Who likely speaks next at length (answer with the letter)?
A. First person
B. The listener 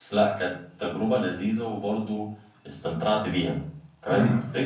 A